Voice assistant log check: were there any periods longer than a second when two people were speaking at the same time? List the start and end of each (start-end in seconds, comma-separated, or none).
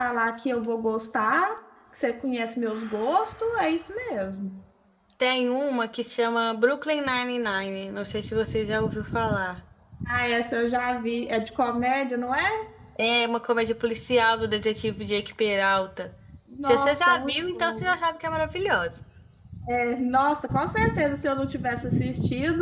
16.6-17.9